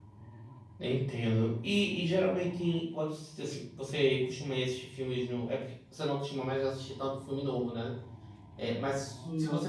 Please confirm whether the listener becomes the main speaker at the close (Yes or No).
No